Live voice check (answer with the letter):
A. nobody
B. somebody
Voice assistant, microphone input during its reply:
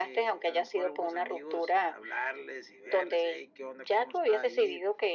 A